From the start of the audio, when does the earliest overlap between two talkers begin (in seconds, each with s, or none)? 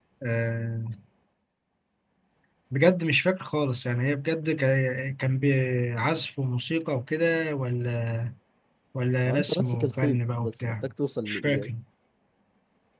9.3 s